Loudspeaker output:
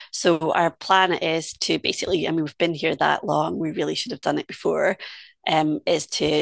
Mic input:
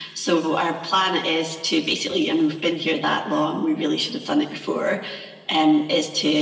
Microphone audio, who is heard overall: echo only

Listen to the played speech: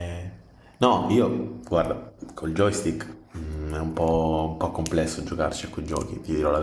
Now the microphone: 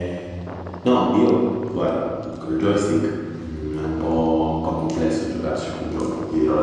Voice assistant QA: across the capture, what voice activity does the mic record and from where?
echo only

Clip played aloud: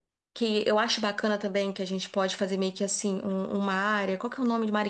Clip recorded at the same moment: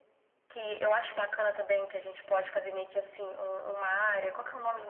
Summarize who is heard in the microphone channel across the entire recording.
echo only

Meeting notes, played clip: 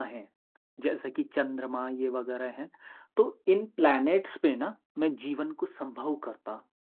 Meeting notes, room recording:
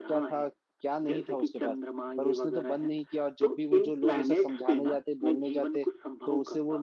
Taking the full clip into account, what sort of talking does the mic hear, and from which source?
both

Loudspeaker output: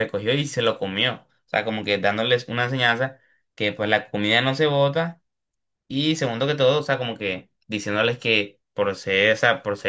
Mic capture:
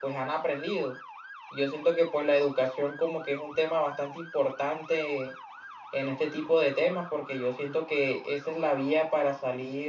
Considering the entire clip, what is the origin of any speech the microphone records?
user only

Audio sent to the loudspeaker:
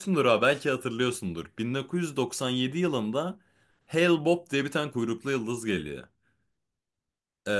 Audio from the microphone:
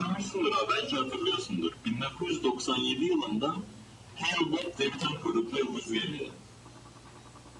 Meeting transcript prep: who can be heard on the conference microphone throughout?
echo only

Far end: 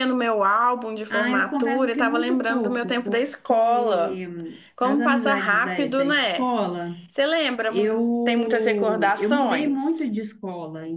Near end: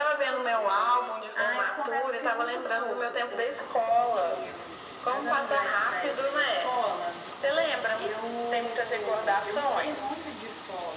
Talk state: echo only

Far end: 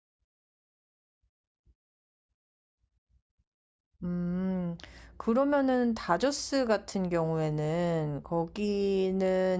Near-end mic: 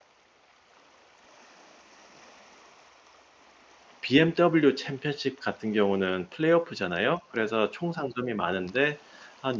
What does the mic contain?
user only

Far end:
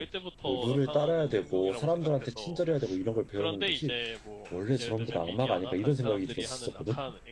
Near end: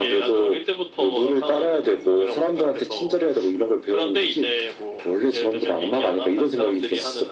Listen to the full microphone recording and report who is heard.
echo only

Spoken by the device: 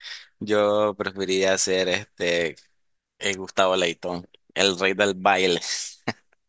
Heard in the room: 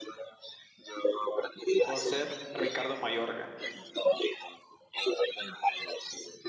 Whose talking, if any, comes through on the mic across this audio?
both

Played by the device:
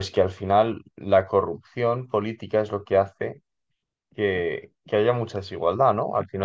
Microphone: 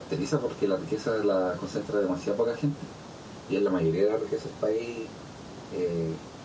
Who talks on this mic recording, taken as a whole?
user only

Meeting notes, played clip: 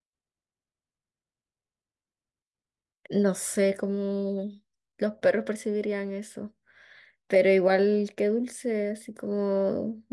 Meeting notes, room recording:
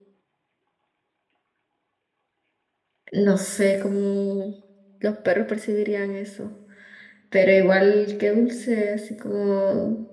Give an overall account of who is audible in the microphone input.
echo only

